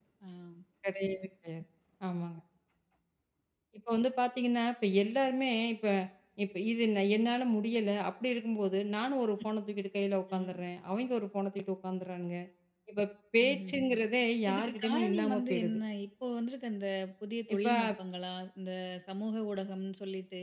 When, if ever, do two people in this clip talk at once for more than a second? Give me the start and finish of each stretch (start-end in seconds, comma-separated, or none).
14.5-15.8